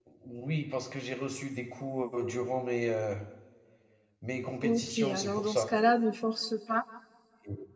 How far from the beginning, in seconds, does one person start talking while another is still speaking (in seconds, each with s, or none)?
4.6 s